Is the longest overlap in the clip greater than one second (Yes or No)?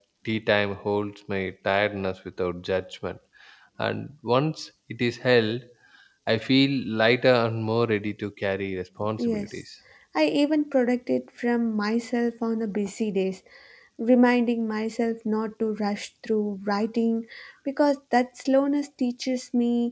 No